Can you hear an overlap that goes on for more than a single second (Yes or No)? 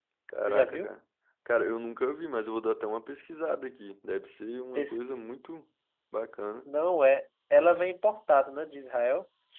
No